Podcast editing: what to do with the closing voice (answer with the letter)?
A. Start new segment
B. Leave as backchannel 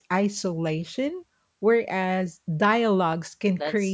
A